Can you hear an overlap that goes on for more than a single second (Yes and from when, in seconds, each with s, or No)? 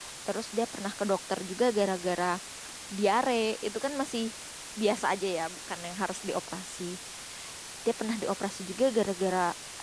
No